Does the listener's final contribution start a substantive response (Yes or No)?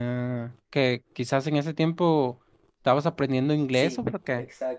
Yes